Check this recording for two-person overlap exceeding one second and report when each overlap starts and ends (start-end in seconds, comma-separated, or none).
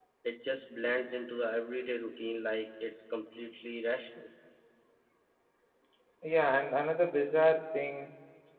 none